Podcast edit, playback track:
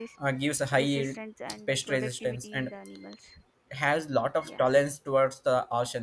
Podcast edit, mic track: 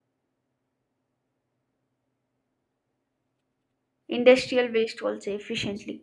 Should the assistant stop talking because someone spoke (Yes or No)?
Yes